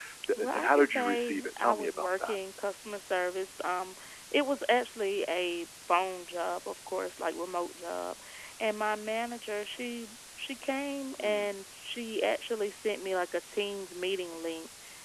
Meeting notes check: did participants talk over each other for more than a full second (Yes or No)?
Yes